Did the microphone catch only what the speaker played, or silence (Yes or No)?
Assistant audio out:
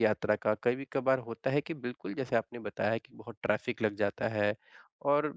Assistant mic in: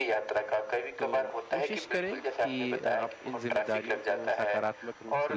No